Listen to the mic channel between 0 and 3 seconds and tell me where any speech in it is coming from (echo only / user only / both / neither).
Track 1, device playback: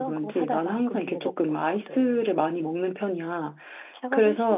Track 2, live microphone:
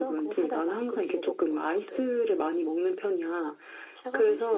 echo only